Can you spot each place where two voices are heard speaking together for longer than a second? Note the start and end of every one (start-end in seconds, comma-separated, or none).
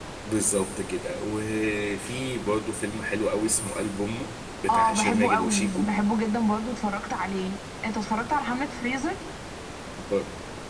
4.7-5.9